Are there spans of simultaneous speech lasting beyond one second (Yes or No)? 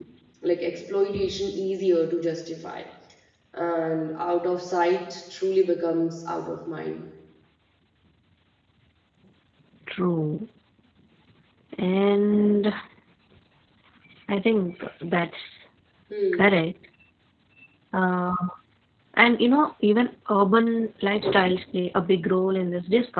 No